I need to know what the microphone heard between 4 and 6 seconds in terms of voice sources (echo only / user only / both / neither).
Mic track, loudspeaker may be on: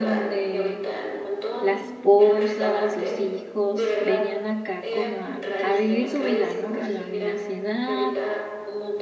both